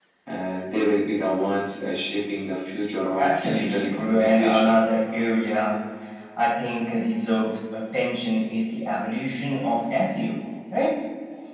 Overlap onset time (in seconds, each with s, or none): 3.2 s